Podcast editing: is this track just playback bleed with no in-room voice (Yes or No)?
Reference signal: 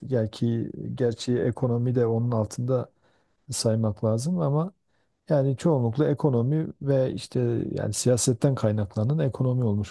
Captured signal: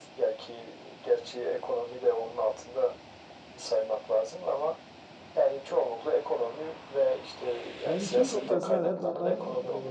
No